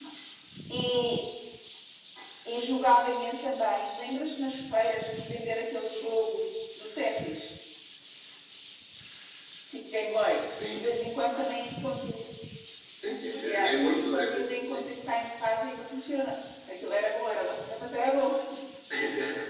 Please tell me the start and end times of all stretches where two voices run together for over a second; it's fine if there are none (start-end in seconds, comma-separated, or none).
13.4-14.9